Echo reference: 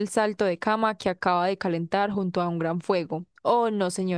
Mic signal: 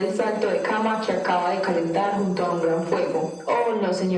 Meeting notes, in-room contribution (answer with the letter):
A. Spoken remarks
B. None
B